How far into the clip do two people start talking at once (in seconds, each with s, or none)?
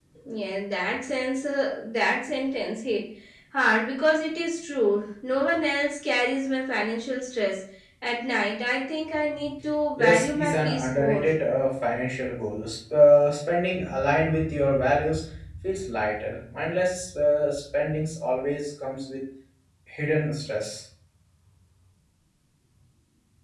10.0 s